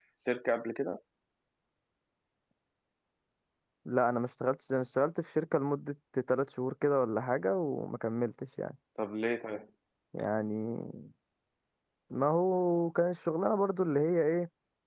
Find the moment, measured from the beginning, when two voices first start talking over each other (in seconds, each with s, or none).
none